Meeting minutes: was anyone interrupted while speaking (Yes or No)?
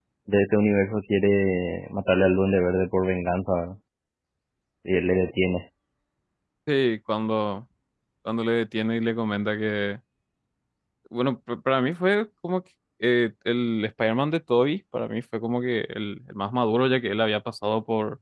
No